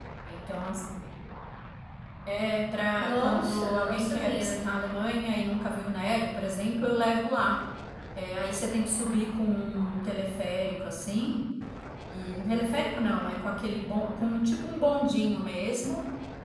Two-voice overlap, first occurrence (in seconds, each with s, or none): 3.0 s